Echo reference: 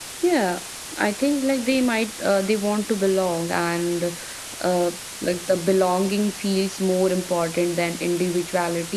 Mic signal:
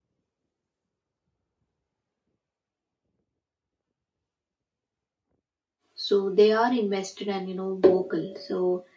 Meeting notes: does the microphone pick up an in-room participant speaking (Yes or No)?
Yes